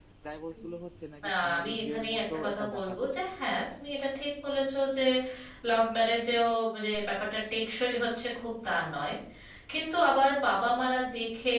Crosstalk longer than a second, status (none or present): present